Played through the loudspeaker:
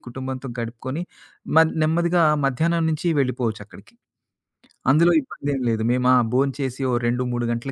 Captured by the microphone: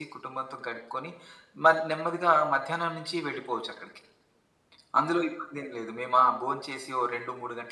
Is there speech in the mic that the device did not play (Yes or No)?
No